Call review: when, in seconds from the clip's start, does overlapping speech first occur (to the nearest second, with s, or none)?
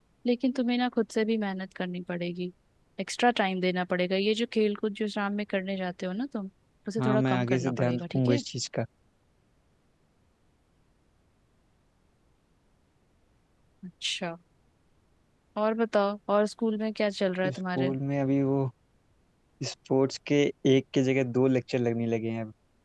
7 s